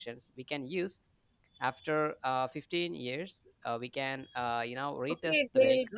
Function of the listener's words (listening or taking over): taking over